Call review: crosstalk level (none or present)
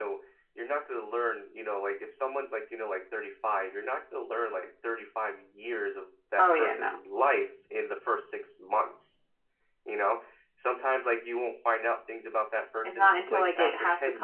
present